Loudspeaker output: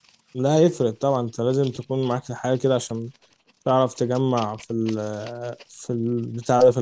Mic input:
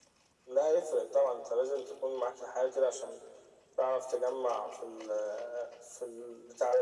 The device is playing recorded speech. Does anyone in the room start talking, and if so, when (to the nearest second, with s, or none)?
none